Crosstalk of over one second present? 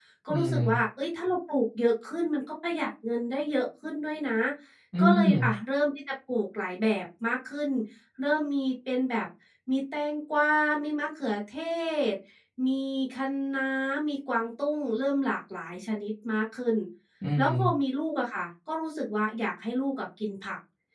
No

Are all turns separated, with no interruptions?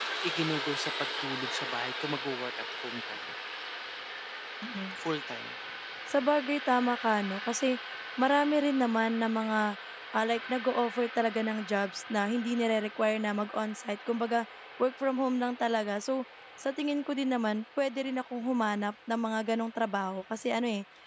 Yes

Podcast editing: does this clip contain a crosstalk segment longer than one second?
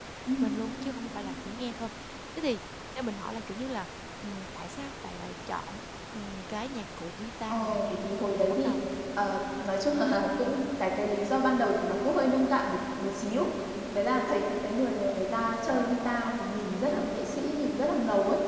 Yes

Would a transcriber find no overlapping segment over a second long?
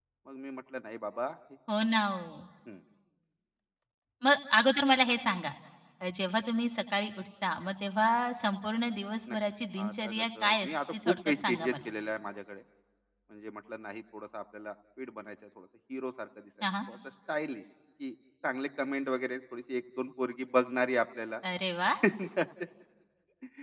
No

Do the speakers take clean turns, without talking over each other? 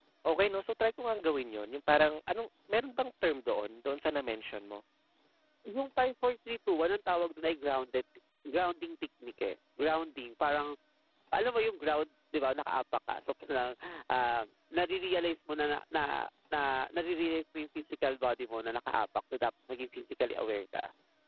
Yes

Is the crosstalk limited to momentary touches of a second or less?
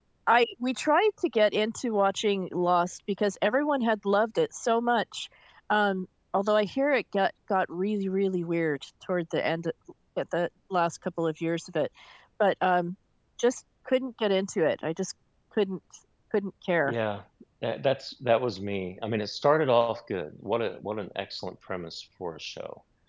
Yes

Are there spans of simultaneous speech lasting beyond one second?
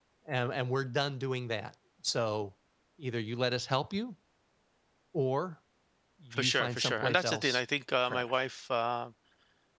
Yes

